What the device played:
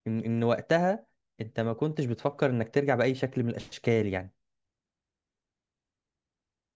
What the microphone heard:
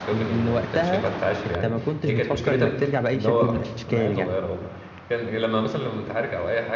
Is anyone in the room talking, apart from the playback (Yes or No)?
Yes